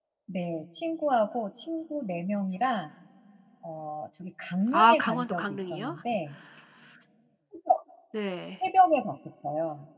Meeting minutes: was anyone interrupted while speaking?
Yes, from 4.7 s

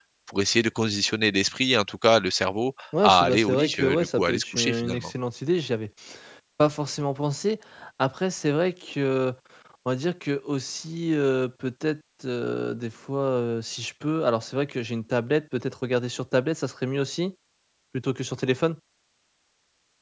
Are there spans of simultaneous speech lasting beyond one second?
Yes, from 2.9 s

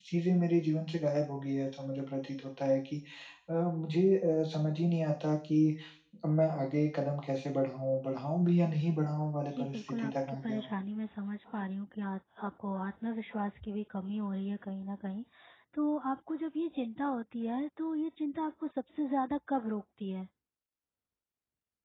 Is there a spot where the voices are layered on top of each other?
Yes, from 9.5 s

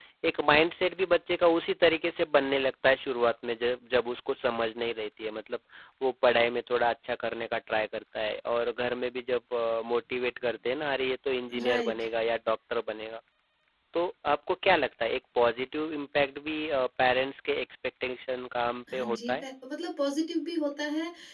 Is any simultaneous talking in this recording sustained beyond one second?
No

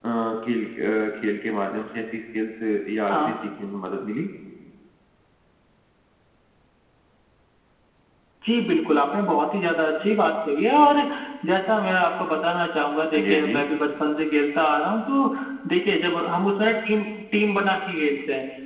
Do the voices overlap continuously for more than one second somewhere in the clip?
No

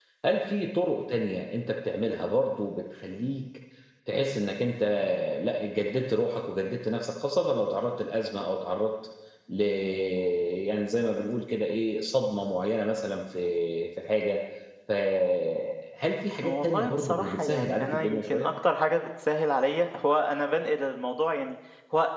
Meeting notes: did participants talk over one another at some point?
Yes, from 16.4 s

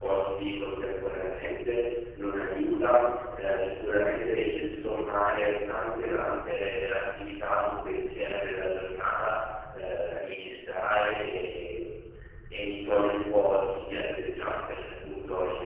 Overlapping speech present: No

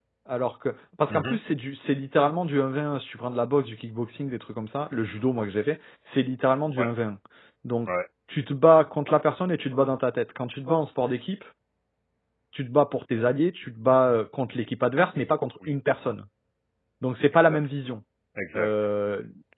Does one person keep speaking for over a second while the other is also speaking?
No

